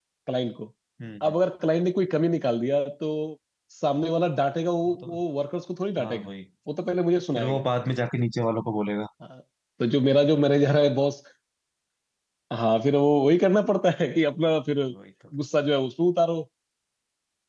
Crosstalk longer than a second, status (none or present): none